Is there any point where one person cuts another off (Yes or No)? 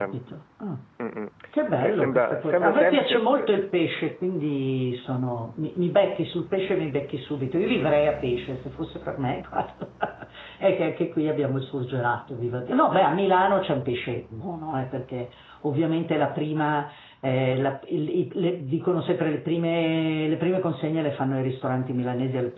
Yes